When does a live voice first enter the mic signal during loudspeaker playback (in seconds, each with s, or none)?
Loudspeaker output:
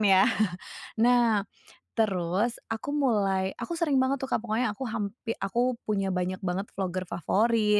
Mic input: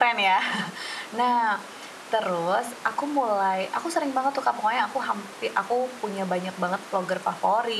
none